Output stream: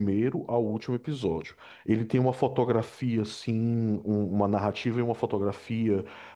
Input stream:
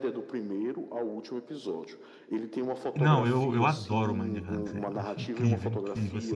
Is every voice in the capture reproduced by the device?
No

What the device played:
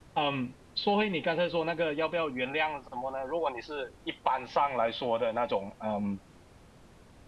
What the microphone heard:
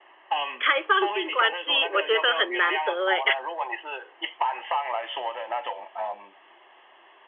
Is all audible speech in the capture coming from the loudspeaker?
No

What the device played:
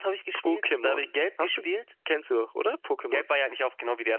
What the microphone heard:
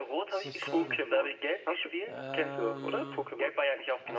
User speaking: Yes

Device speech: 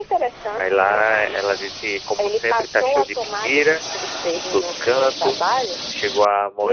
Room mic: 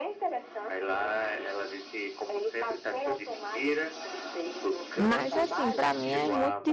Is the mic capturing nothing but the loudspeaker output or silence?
No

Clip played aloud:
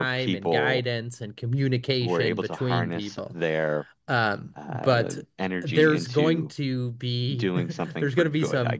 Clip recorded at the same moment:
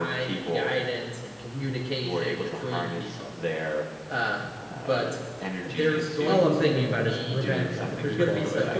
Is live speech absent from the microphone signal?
No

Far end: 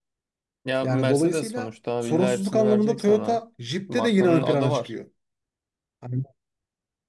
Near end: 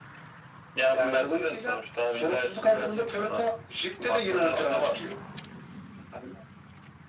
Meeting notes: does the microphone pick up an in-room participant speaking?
No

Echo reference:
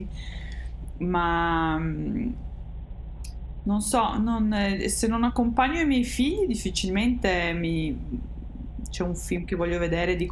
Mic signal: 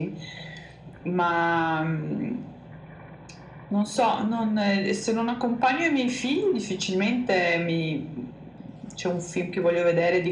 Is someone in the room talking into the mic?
No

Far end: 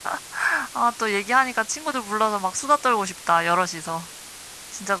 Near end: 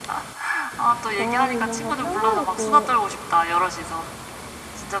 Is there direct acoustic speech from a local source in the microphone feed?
Yes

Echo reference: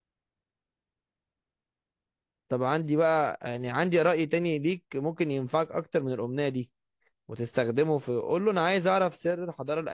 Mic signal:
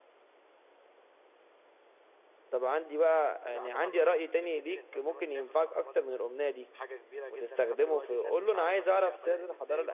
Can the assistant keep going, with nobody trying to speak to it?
No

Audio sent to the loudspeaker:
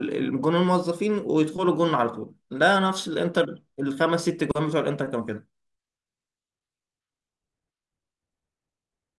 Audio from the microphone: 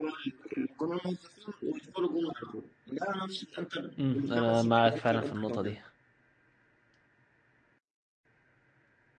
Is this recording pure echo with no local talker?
No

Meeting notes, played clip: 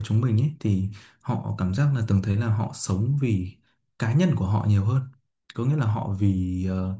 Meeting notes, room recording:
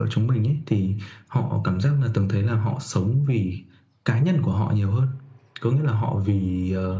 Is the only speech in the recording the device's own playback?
Yes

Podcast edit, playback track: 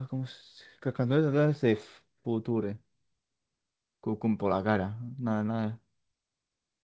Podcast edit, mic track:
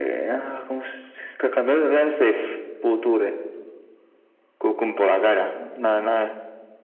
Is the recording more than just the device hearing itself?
No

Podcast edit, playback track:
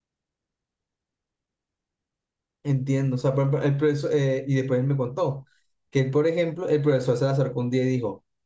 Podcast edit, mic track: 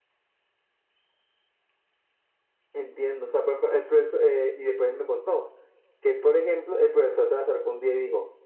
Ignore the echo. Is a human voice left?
No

